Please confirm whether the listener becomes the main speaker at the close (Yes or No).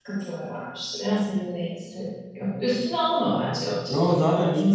Yes